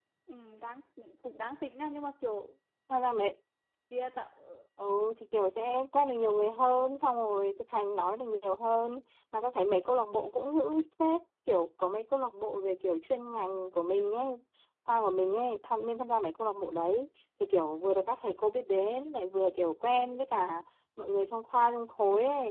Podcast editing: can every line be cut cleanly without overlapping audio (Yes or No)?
Yes